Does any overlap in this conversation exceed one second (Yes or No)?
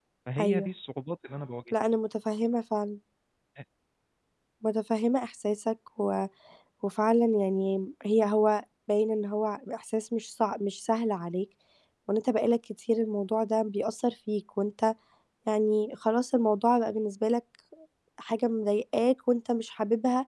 No